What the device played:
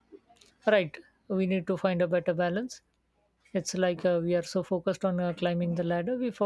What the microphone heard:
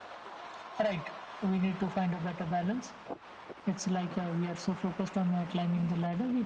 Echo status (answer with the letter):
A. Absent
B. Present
B